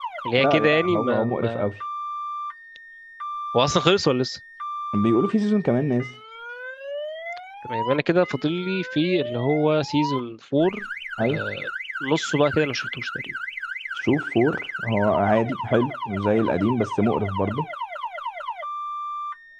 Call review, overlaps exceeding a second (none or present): present